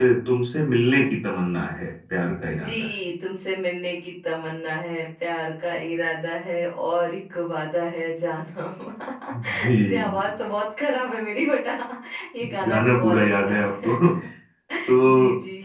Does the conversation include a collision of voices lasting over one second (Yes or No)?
Yes